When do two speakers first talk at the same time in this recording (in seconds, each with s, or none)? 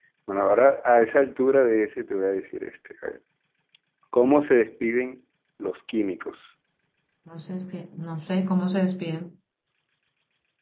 none